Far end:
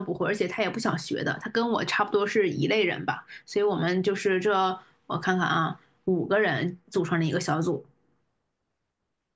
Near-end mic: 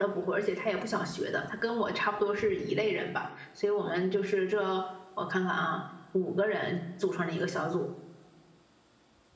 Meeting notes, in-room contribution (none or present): none